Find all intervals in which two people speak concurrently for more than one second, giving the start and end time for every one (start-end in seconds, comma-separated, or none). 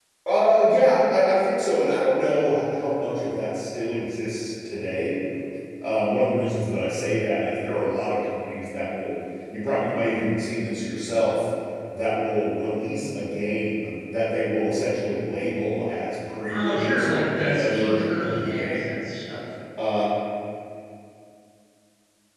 16.5-18.9